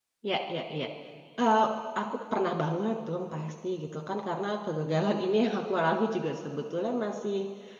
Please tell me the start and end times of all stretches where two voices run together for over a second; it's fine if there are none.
none

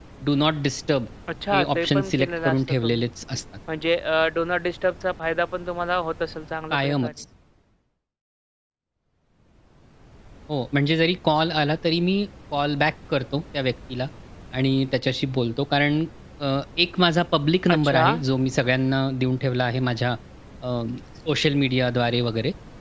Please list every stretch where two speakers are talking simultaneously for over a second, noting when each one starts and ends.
1.5-3.0

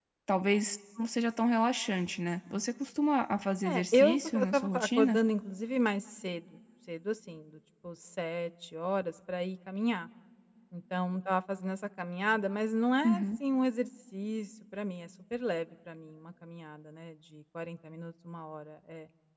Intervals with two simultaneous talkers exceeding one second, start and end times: 3.6-5.2

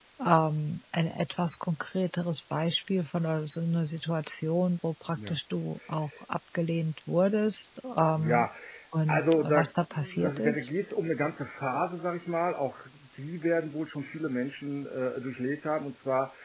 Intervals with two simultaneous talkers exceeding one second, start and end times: 9.1-10.8

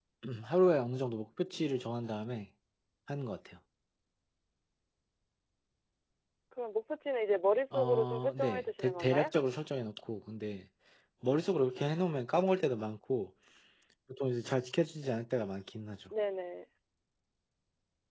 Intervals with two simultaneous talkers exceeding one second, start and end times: 7.7-9.3

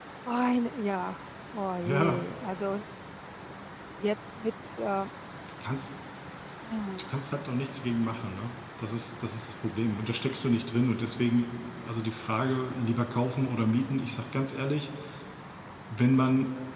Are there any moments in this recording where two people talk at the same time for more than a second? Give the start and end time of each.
none

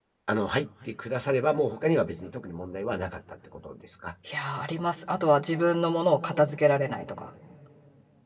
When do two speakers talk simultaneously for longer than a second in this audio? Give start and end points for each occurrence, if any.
none

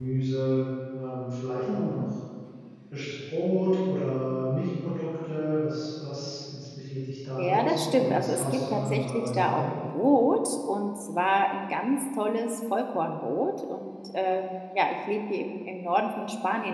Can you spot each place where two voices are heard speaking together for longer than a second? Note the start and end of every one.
7.4-9.7

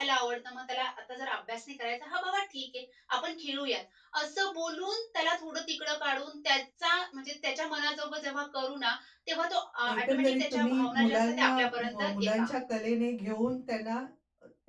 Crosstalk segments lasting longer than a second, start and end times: 9.9-12.5

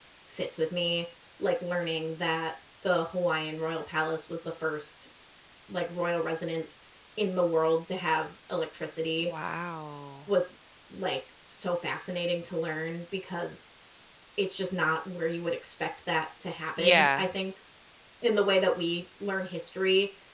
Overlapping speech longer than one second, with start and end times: none

